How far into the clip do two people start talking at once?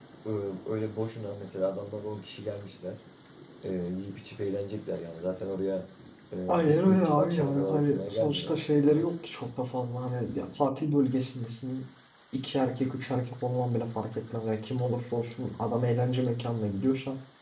6 s

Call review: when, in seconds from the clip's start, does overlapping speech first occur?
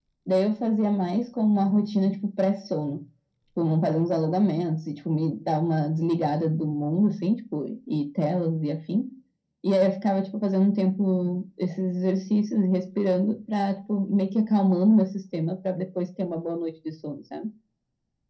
none

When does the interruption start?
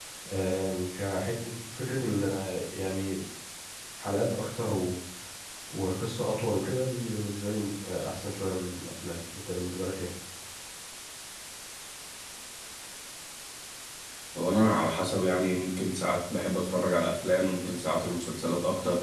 none

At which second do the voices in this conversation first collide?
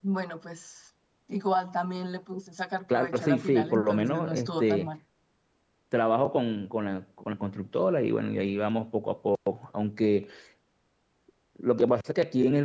3 s

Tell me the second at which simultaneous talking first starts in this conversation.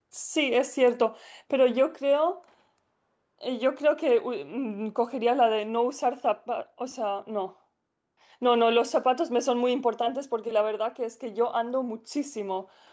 none

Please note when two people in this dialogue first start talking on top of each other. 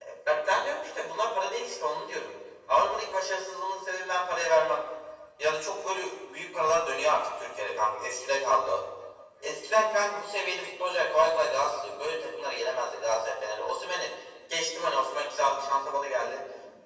none

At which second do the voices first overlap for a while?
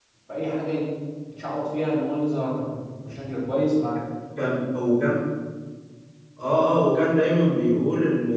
none

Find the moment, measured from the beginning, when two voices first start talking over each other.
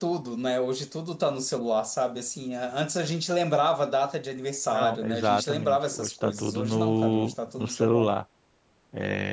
5 s

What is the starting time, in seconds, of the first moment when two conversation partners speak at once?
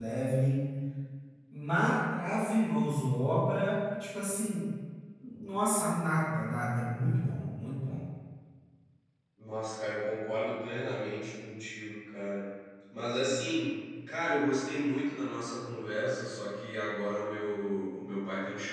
none

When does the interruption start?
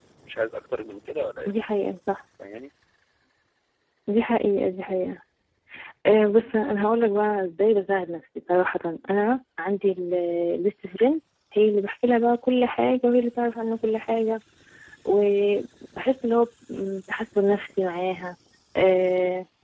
none

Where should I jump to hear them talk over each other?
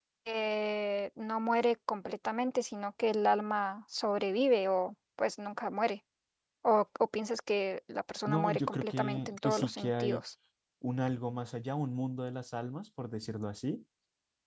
8 s

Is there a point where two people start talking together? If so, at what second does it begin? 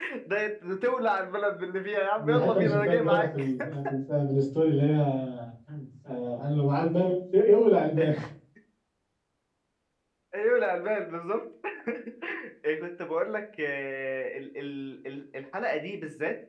2 s

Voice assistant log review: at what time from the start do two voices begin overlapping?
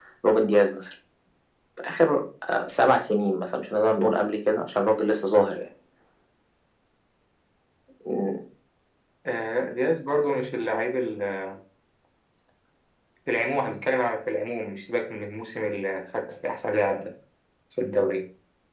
none

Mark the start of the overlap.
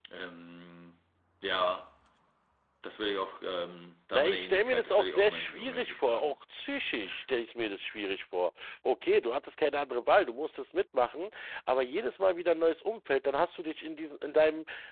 4 s

